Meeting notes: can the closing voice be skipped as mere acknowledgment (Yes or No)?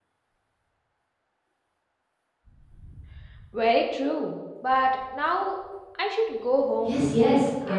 No